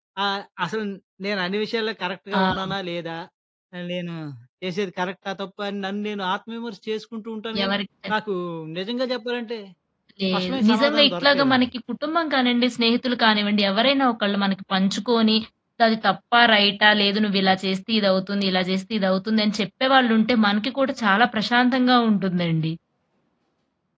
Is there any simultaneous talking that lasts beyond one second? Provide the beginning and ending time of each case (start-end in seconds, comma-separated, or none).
10.3-11.7